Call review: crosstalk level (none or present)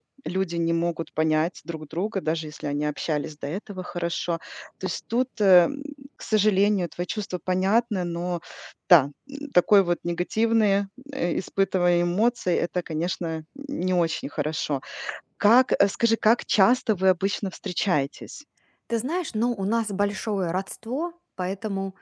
none